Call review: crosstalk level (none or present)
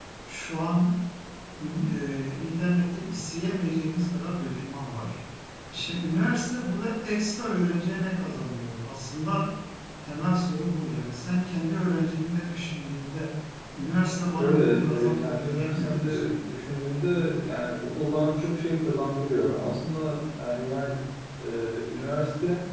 present